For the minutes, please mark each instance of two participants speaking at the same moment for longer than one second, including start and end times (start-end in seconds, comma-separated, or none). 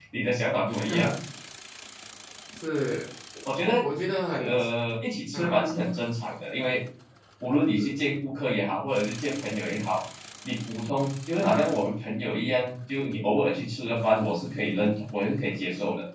none